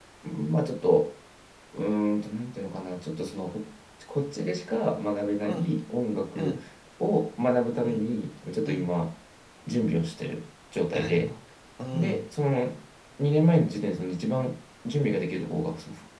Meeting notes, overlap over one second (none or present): none